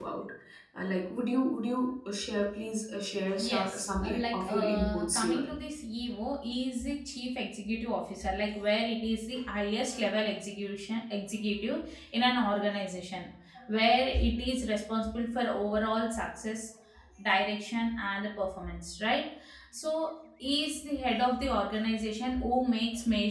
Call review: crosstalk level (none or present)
present